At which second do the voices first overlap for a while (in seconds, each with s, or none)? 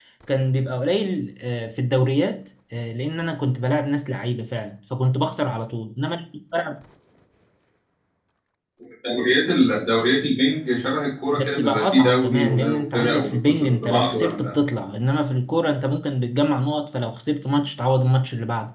11.3 s